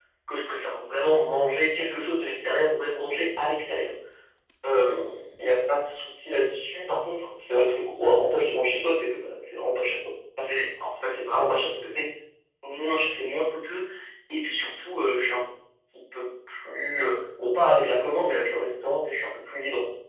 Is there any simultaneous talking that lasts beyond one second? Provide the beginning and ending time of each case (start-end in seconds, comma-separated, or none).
none